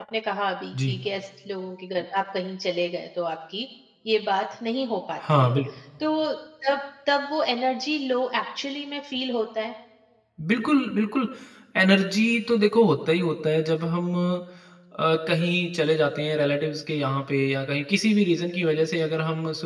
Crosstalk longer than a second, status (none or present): none